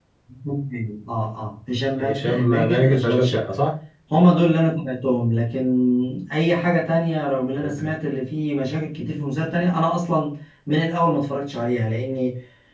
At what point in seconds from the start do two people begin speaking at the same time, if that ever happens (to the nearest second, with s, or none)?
2 s